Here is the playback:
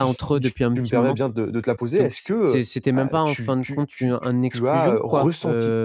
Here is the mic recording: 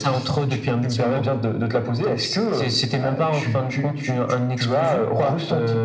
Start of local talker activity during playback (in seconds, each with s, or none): none